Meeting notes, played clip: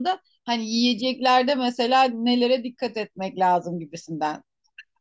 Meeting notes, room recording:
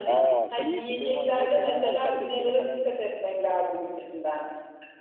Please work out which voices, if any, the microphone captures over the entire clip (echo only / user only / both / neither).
both